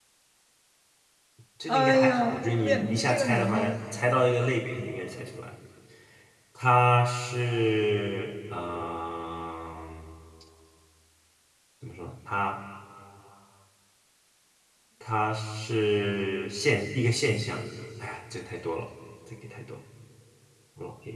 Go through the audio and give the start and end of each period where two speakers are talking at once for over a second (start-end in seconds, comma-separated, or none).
1.7-3.8